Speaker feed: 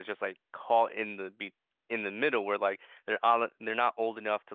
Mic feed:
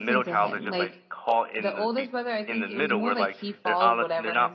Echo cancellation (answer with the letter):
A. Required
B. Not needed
A